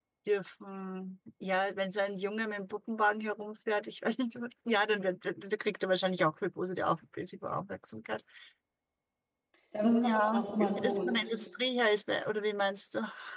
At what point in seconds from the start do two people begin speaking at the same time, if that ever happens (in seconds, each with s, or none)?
9.8 s